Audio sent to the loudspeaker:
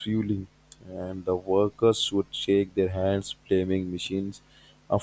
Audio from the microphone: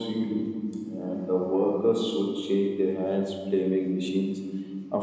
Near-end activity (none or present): none